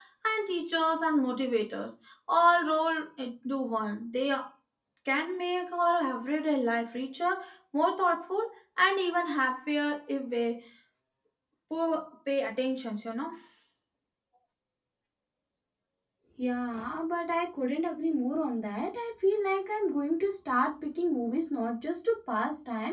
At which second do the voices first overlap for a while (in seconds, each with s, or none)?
none